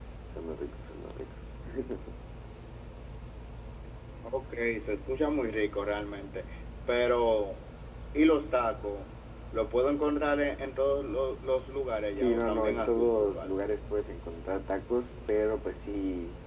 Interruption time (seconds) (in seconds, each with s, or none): 12.1 s